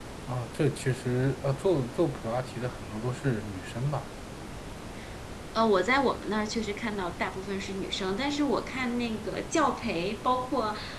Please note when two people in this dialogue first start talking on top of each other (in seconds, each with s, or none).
none